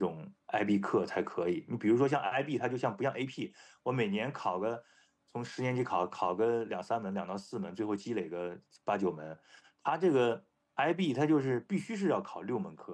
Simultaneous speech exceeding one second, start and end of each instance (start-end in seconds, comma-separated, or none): none